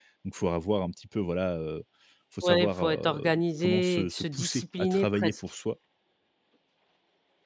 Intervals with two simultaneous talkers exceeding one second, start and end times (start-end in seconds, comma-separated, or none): 2.4-5.4